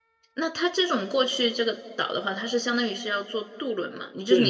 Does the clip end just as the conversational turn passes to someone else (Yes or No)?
Yes